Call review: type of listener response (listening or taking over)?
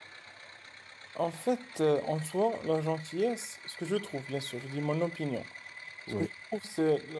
listening